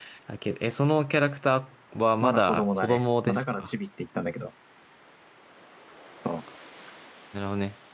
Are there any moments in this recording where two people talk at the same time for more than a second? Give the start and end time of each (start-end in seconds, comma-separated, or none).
2.2-3.7